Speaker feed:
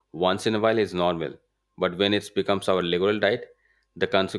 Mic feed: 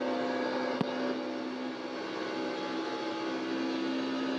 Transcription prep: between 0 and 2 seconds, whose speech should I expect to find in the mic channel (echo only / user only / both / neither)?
neither